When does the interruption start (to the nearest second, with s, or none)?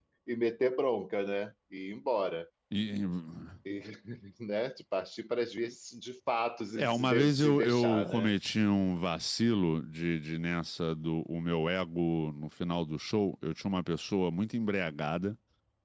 7 s